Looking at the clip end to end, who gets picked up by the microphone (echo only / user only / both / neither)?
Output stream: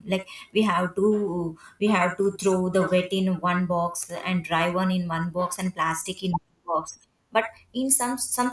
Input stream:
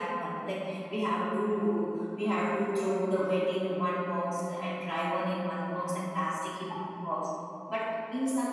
echo only